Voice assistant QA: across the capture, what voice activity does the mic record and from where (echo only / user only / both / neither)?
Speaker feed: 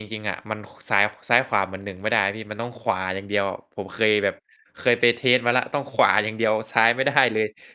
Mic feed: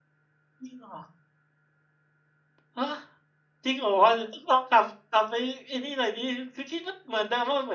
user only